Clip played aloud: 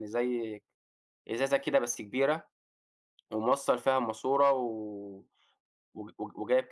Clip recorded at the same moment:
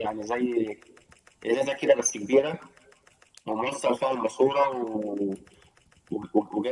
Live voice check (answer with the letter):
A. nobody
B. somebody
A